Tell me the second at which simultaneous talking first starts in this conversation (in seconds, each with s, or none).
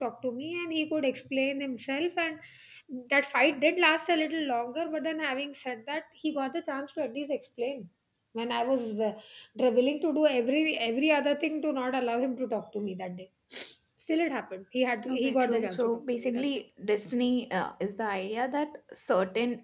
15.1 s